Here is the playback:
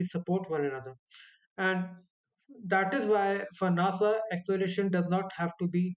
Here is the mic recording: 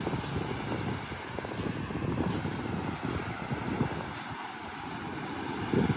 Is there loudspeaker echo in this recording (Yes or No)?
No